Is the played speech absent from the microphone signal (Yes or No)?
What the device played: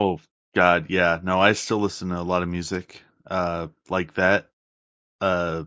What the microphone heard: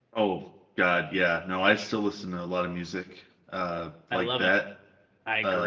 No